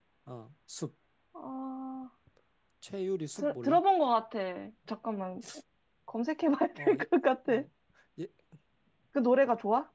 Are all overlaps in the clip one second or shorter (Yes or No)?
Yes